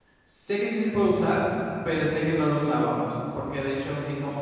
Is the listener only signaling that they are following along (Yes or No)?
Yes